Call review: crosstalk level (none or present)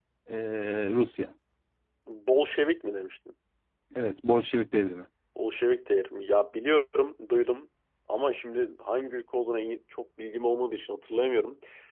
none